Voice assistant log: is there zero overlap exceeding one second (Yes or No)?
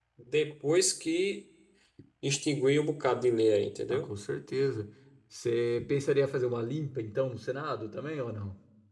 Yes